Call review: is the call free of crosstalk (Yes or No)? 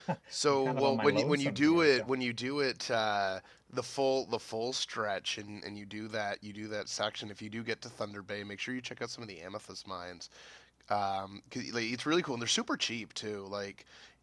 No